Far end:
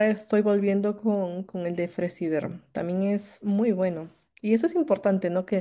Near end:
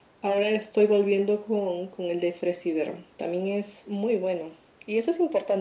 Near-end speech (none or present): none